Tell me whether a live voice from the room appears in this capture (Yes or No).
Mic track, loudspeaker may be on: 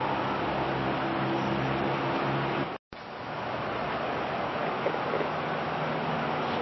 No